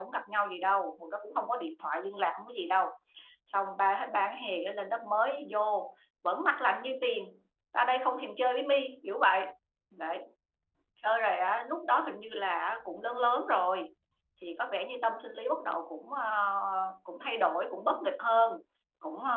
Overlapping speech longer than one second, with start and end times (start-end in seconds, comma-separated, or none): none